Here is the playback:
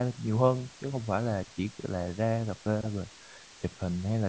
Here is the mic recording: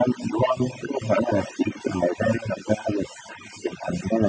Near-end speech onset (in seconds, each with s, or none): none